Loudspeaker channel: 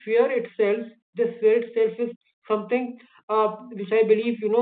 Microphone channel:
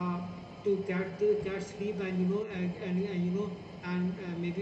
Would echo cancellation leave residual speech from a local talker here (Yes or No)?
Yes